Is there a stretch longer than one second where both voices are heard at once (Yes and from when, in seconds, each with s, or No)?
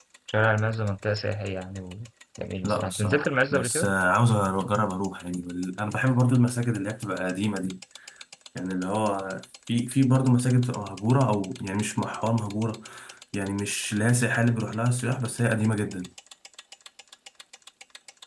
Yes, from 2.6 s